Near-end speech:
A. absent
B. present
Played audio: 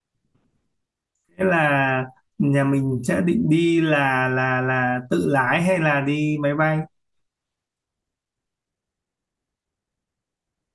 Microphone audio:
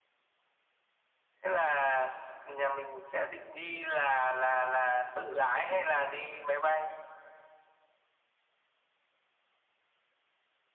A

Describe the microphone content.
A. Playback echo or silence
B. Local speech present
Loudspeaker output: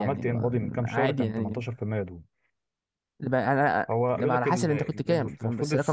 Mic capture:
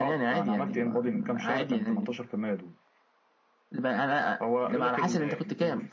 A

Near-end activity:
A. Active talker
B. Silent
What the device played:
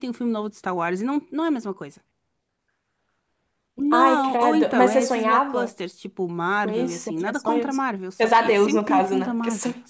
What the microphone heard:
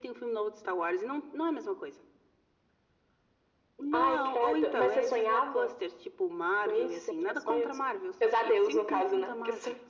B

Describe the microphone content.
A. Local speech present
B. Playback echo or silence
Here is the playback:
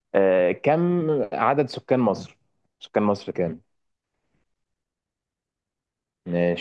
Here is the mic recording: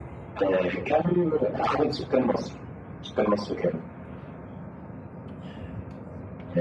B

